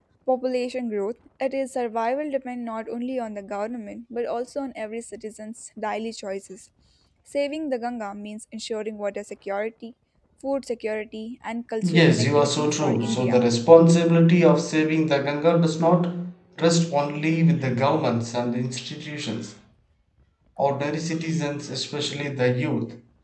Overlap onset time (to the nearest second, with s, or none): 12 s